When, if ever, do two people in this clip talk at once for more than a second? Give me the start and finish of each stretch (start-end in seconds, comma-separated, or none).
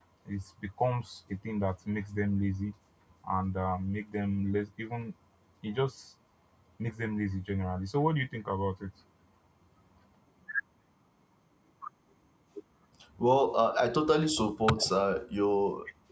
none